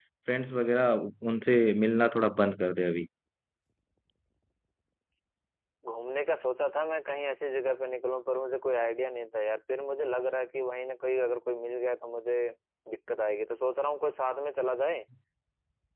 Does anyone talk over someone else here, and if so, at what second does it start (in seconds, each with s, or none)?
none